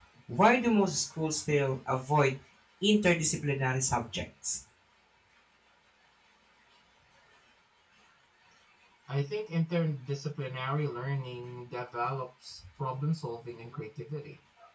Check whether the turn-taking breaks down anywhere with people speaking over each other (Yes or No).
No